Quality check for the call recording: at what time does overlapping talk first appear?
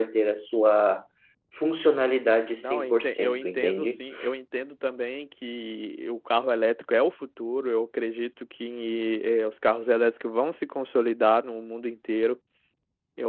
3 s

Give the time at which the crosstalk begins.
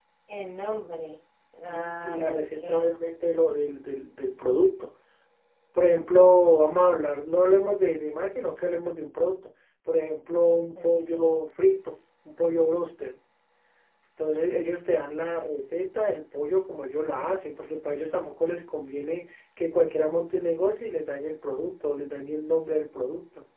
2 s

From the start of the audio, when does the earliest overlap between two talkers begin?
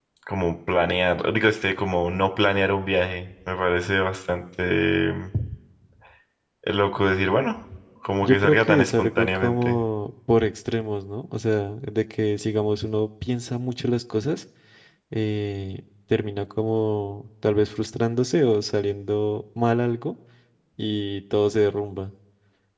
8 s

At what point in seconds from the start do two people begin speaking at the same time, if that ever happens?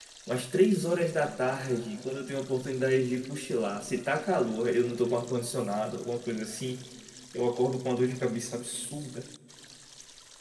none

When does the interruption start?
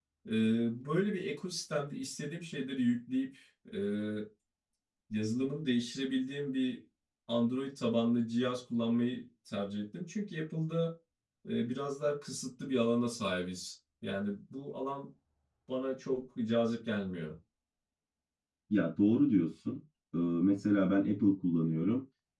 none

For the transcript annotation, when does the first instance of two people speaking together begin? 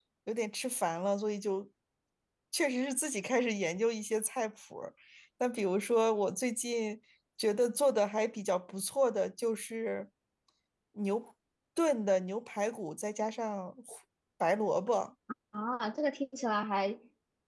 none

